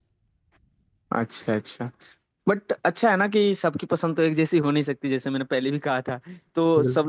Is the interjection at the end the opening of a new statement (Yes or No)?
No